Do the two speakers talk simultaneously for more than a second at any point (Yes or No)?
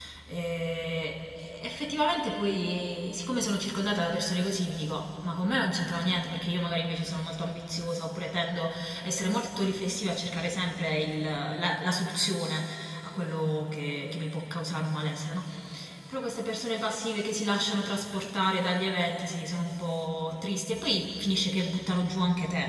No